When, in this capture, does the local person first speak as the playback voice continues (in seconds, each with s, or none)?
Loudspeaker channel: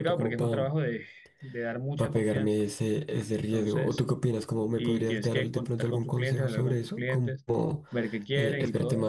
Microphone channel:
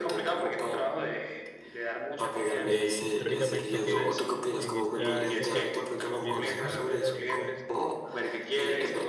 2.6 s